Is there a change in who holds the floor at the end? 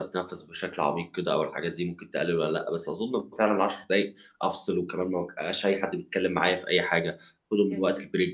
No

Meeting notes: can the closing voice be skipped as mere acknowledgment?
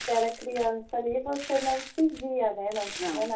Yes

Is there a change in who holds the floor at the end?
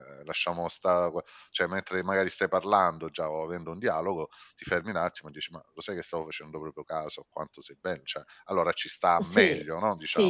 Yes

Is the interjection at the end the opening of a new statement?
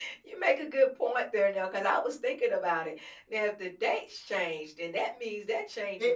Yes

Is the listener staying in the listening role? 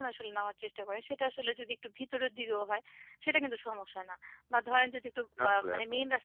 Yes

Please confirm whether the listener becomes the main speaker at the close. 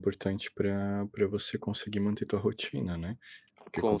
No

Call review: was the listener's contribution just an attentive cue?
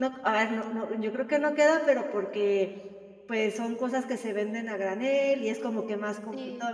Yes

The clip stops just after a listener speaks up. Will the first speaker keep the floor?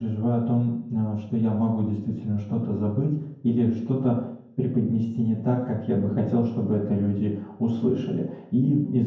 Yes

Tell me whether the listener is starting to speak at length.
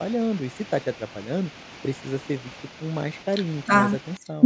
Yes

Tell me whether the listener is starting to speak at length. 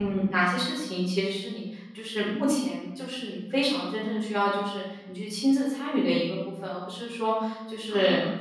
No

